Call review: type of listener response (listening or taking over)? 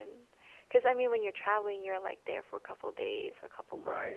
taking over